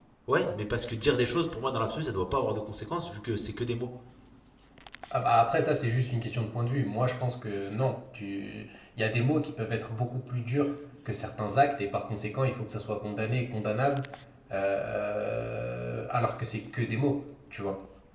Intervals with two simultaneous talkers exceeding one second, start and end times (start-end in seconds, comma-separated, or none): none